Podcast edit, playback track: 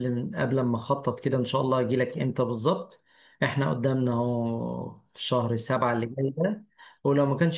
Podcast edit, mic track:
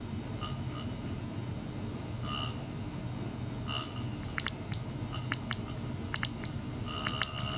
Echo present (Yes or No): No